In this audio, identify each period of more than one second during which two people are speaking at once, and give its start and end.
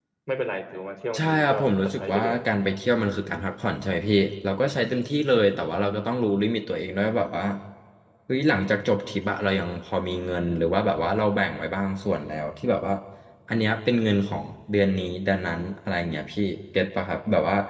1.1-2.4

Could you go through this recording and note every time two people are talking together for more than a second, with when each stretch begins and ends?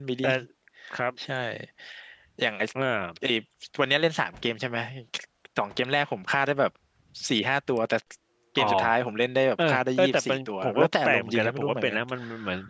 9.7-12.0

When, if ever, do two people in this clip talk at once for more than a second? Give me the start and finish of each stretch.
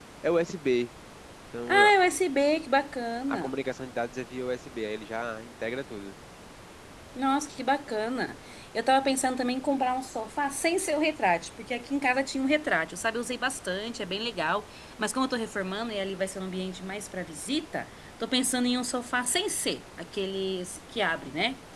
none

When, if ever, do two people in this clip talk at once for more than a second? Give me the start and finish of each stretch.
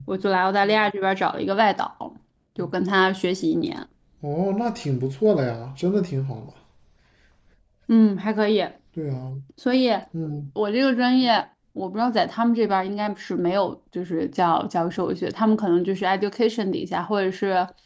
none

